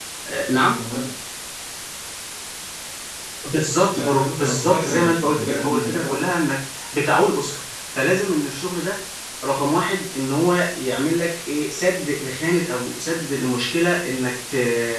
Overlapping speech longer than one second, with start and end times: 3.9-6.2

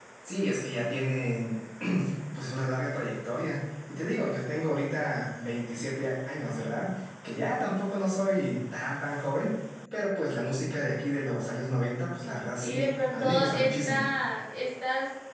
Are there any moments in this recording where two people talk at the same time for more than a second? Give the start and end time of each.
12.6-14.0

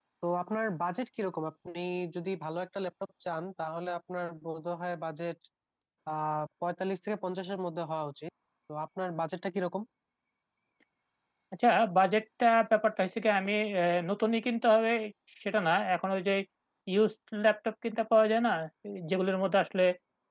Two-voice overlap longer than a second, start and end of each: none

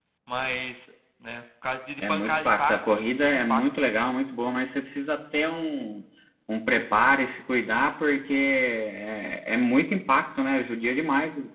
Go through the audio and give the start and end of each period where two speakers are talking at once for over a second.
2.1-3.7

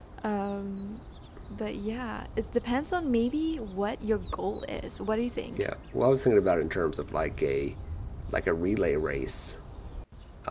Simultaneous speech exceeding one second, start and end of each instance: none

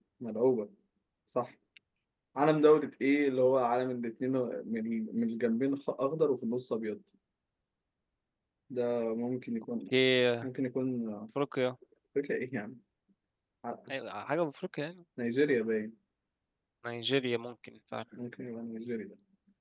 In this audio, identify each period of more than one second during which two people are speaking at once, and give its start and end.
none

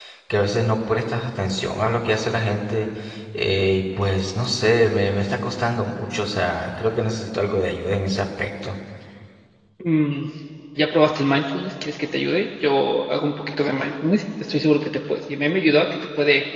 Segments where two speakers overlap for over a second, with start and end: none

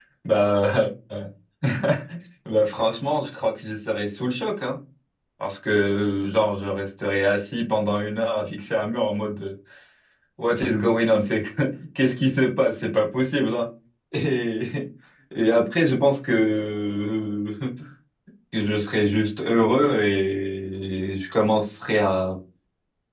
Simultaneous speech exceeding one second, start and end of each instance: none

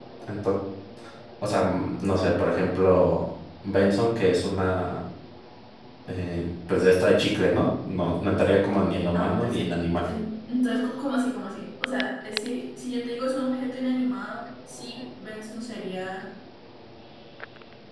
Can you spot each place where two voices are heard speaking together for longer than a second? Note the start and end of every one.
none

